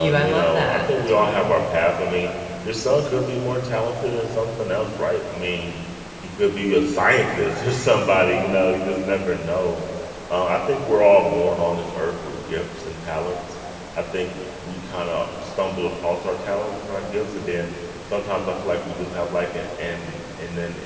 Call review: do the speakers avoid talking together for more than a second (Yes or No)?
No